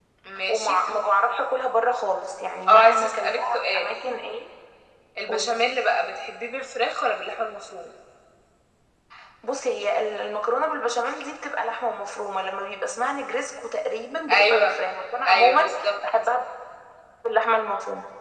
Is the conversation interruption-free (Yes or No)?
No